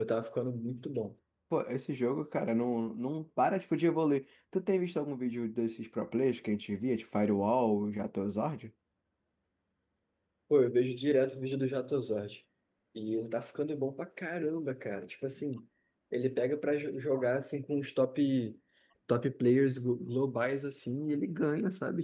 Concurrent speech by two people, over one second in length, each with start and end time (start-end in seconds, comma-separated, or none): none